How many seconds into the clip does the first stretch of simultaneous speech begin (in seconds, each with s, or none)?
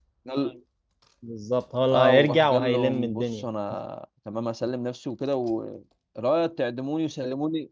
1.9 s